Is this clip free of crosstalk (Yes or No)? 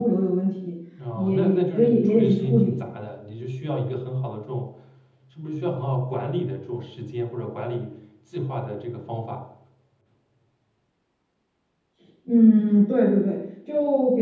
No